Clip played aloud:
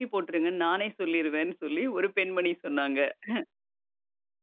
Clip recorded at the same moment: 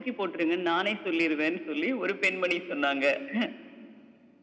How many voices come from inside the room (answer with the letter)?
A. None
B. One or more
A